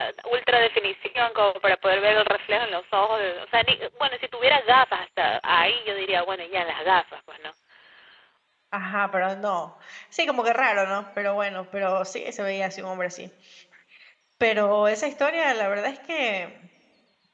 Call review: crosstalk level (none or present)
none